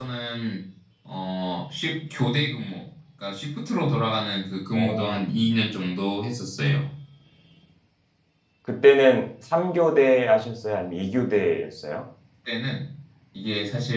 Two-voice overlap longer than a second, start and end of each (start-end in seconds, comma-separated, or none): none